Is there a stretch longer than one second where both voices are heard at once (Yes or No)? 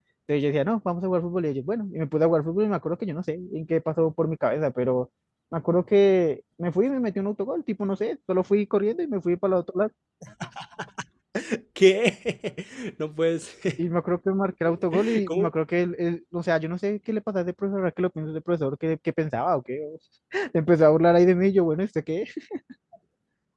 No